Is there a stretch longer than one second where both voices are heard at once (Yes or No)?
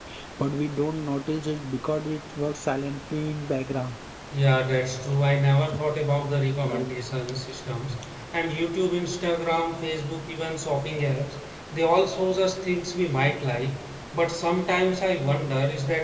No